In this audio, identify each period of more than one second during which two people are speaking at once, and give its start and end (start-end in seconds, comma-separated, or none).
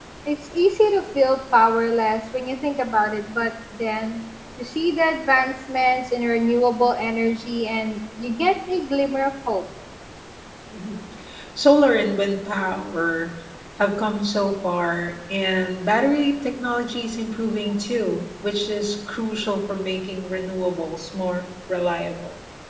none